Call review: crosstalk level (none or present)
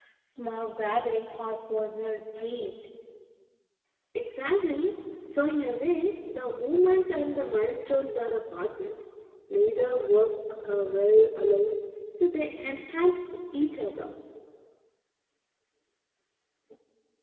none